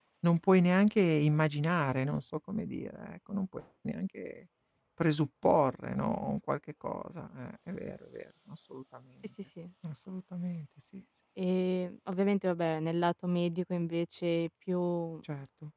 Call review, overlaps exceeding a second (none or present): none